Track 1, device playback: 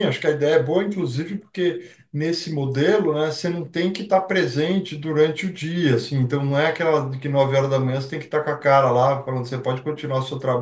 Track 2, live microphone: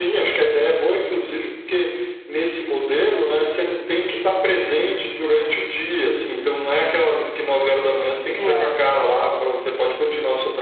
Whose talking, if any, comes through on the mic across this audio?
both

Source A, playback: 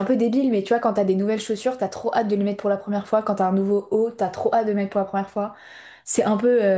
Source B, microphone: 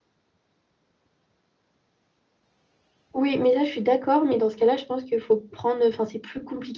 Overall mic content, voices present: user only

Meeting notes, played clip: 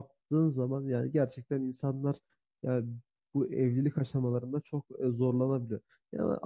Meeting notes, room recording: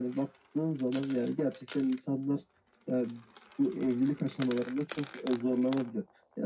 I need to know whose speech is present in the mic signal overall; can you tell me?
echo only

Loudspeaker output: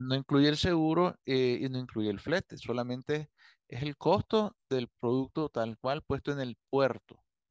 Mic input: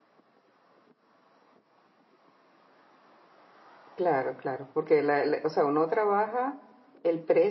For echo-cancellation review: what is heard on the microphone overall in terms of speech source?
user only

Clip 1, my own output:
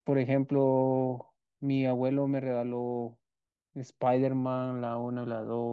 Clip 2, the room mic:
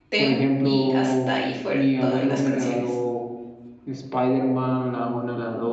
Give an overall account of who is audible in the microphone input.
both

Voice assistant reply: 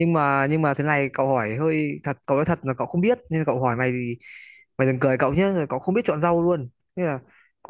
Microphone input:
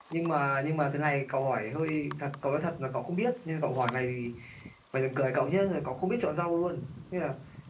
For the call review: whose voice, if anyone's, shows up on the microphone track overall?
echo only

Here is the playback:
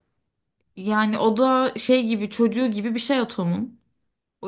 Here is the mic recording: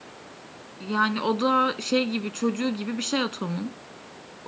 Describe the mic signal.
echo only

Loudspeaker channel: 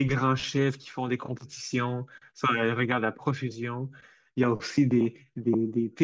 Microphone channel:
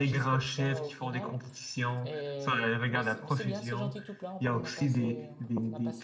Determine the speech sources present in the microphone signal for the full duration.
both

